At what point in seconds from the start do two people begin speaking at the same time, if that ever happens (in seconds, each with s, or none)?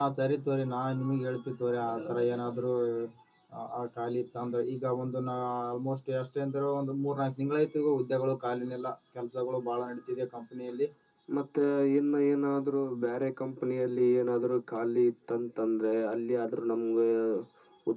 none